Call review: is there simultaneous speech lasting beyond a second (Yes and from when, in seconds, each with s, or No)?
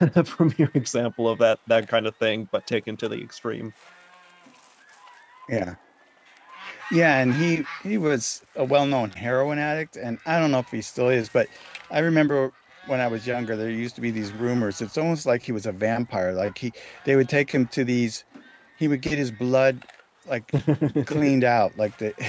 No